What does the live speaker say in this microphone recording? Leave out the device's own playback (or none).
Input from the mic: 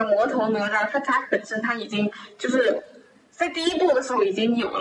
none